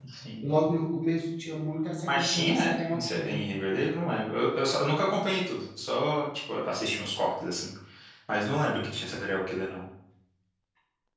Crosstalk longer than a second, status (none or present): present